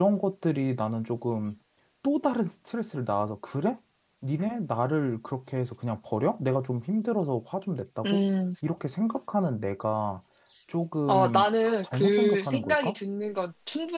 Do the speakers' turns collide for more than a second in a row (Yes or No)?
Yes